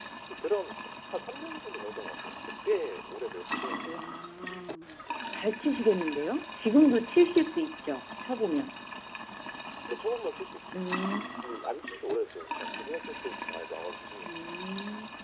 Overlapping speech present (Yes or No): No